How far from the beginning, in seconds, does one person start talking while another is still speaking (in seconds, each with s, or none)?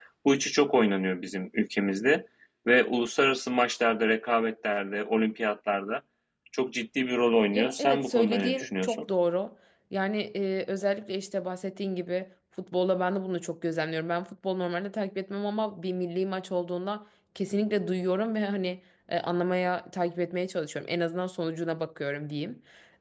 7.5 s